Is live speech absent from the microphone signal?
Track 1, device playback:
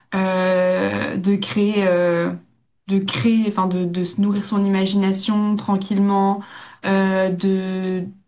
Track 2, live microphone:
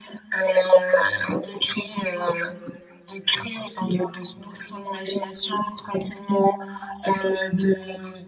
Yes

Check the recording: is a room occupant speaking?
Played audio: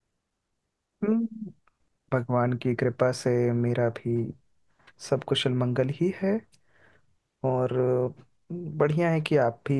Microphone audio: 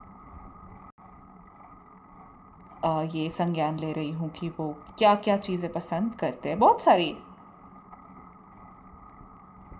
Yes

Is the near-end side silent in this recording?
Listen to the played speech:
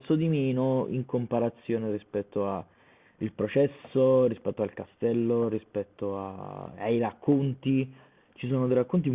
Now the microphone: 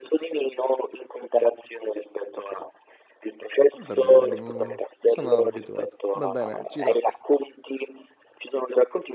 No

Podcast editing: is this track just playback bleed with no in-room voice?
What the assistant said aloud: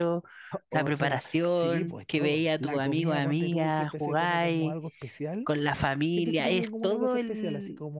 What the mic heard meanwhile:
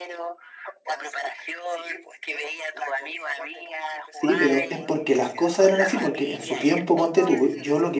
No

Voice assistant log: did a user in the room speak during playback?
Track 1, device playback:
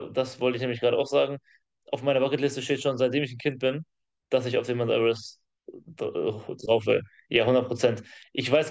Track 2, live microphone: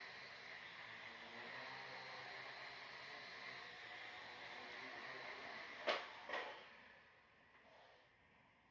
No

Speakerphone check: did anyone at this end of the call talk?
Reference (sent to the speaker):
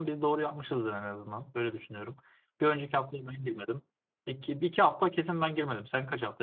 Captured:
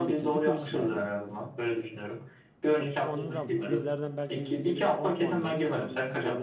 Yes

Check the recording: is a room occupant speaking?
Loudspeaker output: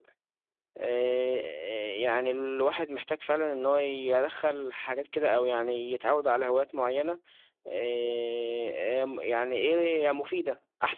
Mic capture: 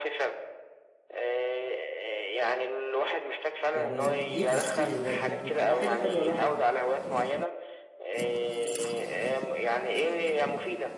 Yes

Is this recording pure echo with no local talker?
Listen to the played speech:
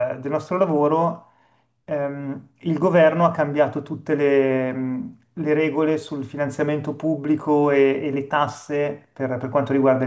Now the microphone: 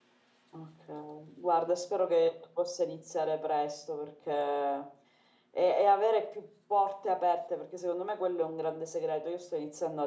No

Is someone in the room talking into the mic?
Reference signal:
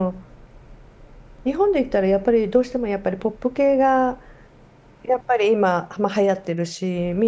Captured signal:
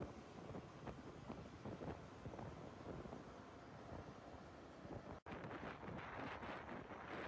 No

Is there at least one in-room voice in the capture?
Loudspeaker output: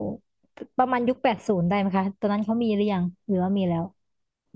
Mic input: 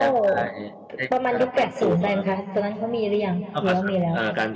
Yes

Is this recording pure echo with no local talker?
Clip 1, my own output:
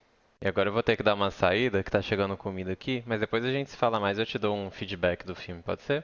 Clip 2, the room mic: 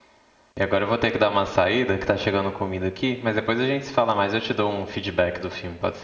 Yes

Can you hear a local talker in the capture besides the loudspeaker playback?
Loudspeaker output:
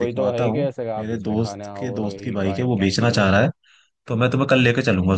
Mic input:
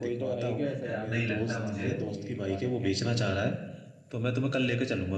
Yes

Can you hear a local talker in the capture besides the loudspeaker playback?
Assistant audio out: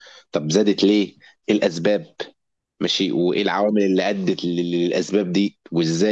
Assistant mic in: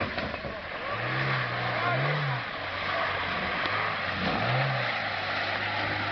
No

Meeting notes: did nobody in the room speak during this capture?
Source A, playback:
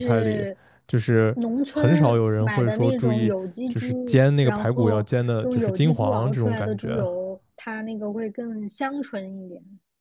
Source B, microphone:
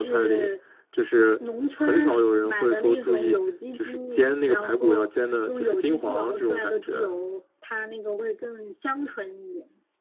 Yes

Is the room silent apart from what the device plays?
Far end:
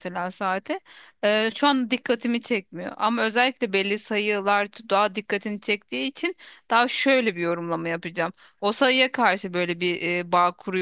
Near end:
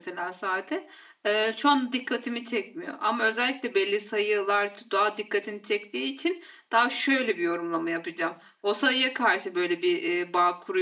Yes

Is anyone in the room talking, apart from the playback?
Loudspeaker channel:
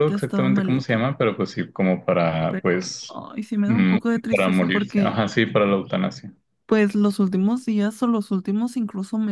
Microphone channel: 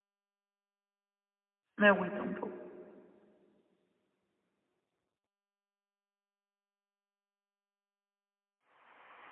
Yes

